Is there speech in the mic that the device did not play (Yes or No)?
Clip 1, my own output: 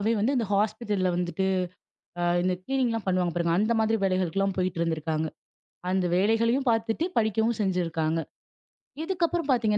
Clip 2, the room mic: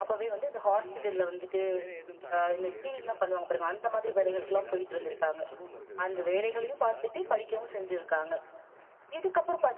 Yes